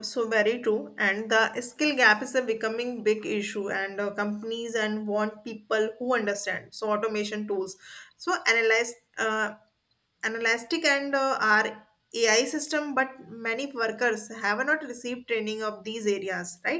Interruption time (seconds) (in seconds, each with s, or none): none